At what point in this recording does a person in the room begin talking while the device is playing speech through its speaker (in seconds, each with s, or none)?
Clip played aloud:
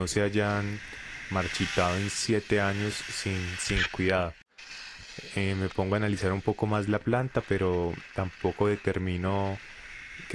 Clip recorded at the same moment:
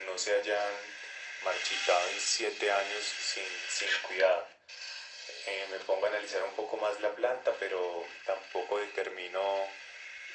none